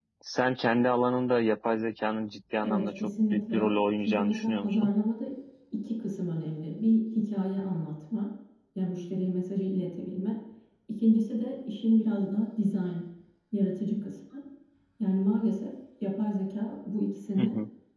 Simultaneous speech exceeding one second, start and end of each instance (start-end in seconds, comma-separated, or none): 2.6-4.9